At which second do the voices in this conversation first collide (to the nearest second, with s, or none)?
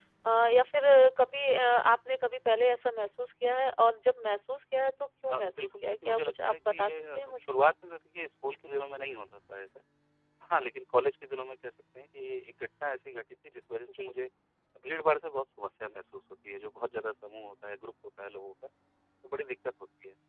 5 s